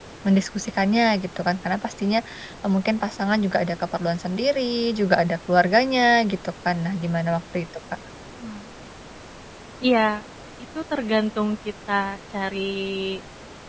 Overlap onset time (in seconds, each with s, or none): none